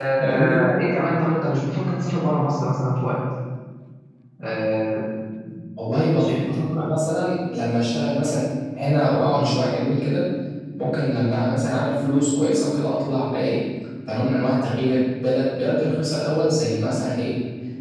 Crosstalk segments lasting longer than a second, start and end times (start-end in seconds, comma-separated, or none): none